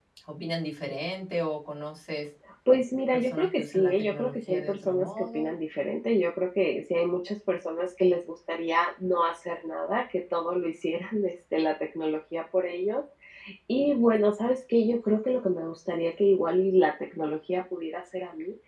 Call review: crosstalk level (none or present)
present